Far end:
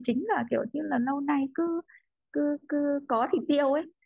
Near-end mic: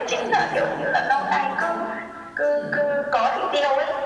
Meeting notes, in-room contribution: present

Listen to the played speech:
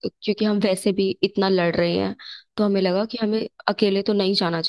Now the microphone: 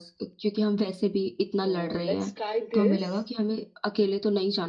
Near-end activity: present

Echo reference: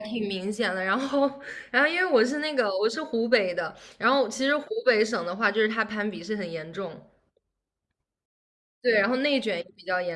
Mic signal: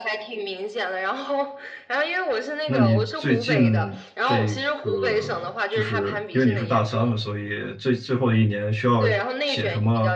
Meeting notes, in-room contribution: present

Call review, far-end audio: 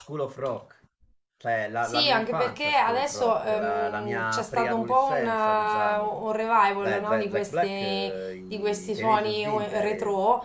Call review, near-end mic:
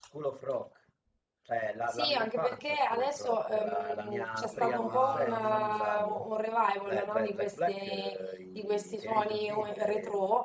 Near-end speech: present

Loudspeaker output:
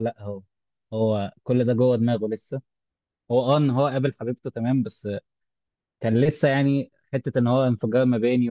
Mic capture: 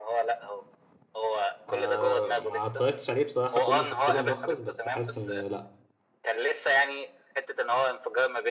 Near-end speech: present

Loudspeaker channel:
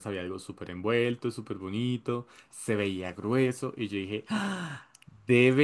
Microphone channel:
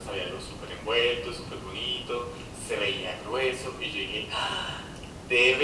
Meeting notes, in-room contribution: none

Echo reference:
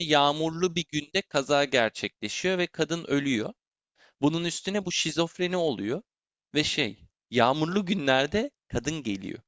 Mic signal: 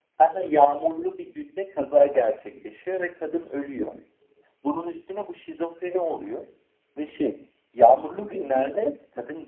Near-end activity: none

